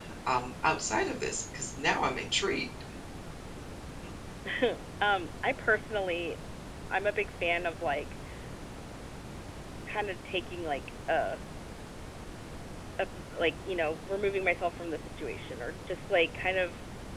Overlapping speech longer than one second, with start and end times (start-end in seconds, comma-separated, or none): none